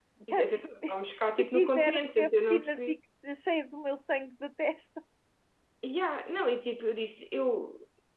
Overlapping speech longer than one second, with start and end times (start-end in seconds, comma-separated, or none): 1.4-3.0